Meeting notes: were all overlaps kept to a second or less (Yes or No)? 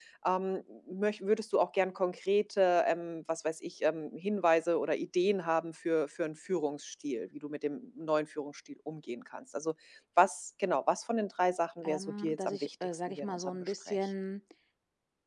No